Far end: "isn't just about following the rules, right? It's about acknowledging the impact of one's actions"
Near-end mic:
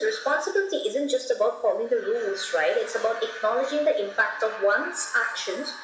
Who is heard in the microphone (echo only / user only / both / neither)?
echo only